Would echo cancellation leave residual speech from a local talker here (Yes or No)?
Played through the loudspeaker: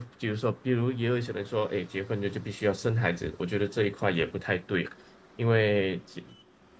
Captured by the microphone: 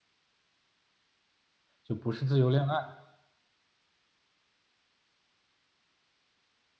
Yes